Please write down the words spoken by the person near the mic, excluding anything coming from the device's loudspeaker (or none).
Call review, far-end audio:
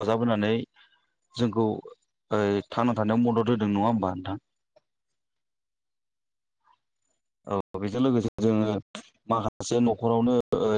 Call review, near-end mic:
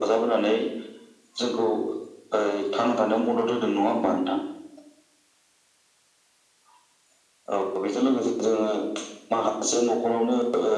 none